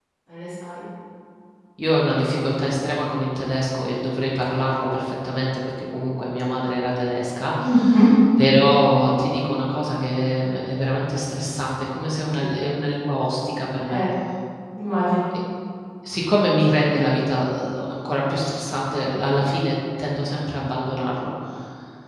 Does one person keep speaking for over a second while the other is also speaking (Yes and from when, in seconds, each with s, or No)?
No